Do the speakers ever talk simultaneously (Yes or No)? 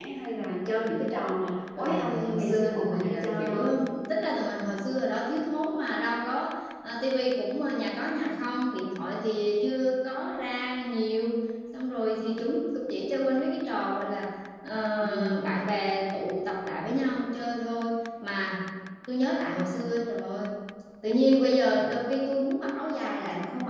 Yes